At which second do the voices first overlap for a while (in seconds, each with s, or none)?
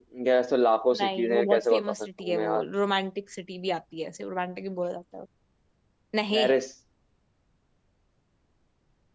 1.0 s